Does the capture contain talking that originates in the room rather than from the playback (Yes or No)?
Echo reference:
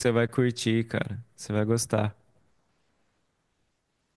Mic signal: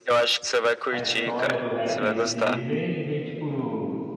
Yes